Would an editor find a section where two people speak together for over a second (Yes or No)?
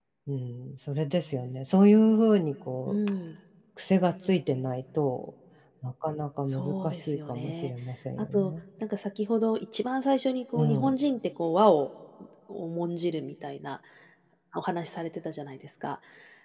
Yes